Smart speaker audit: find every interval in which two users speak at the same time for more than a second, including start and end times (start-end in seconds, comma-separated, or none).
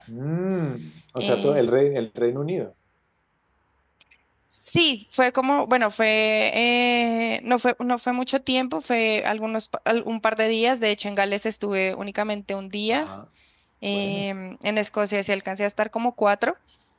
none